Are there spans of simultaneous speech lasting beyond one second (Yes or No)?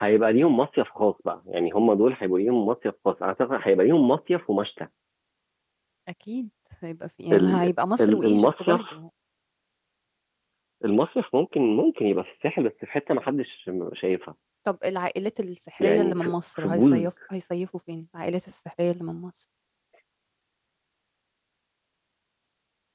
Yes